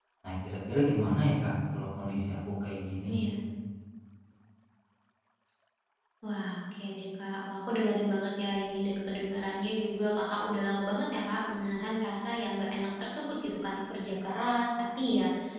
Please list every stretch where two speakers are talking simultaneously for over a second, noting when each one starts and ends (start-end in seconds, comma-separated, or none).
none